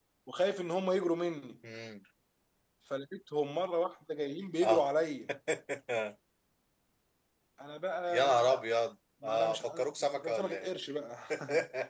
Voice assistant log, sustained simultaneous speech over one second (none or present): present